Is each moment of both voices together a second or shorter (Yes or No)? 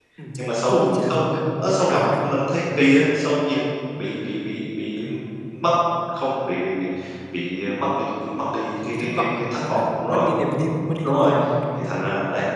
No